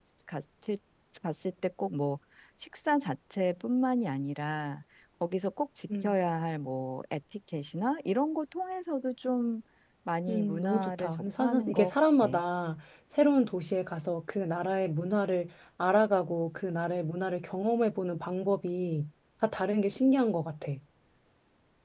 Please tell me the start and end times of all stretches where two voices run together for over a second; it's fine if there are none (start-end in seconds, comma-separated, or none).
10.3-11.9